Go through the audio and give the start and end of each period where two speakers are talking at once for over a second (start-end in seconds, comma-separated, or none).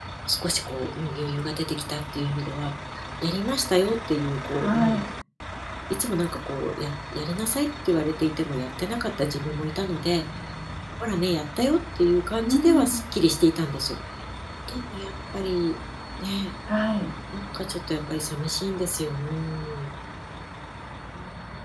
none